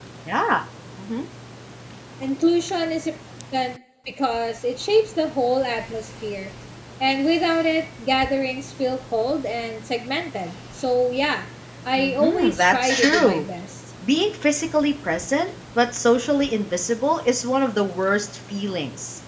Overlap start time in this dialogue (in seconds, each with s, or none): 12.0 s